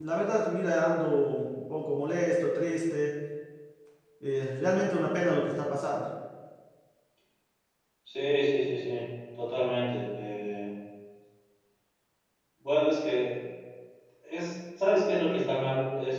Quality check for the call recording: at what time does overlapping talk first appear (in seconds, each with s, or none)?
none